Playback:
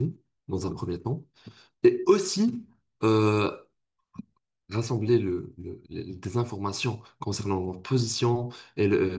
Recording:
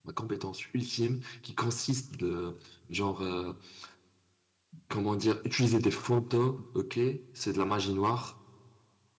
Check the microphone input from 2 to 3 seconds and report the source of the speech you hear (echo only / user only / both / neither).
user only